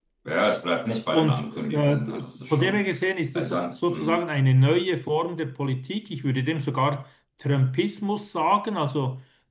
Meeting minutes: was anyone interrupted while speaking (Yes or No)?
Yes